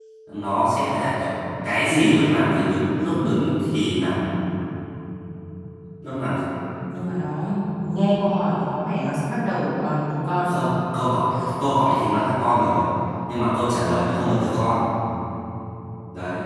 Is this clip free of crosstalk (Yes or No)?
Yes